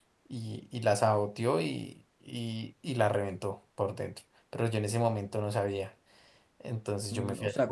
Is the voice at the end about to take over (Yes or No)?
Yes